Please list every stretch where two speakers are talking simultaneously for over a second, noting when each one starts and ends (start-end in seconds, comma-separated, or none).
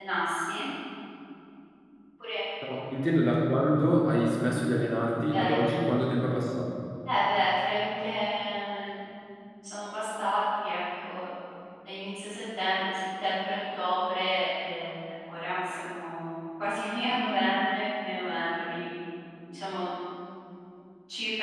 none